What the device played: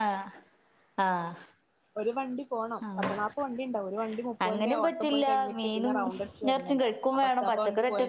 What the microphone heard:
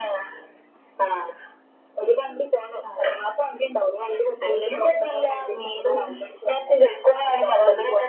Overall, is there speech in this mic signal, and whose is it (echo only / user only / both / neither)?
echo only